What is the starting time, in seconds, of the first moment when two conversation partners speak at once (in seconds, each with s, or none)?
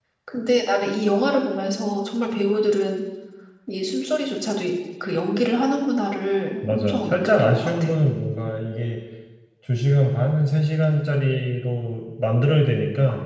6.6 s